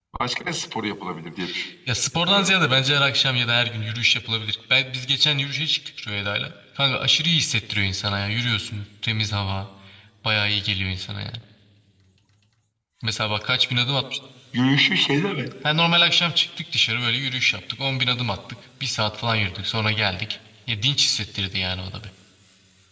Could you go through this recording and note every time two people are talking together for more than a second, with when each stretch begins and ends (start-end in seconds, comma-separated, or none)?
none